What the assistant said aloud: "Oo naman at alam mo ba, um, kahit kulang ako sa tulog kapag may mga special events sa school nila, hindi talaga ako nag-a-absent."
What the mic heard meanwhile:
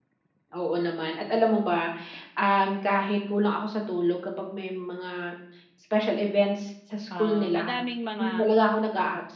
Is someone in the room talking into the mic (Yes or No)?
Yes